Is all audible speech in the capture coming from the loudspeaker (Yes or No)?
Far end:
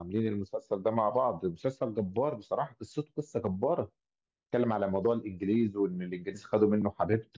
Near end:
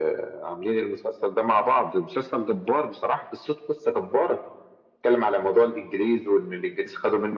Yes